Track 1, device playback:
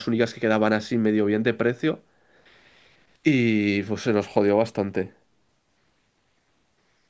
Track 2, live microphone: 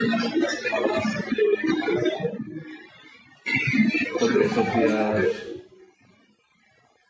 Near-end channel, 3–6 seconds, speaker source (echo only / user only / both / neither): both